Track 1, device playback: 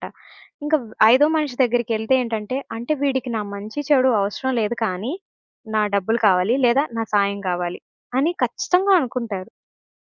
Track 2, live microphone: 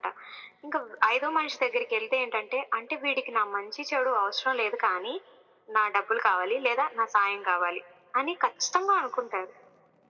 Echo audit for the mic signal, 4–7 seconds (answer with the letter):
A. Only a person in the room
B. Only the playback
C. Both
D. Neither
B